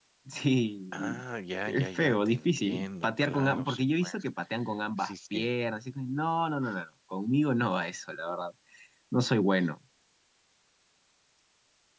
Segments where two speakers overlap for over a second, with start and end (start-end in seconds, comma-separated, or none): 1.6-4.1